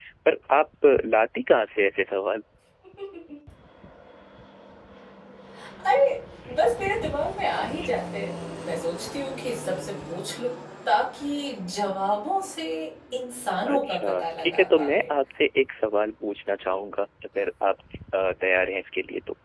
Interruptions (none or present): present